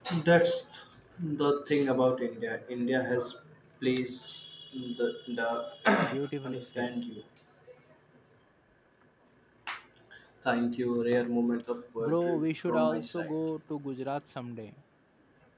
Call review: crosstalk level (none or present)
present